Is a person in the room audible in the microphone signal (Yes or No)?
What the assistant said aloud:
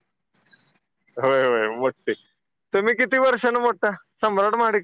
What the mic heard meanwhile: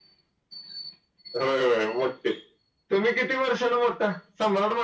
No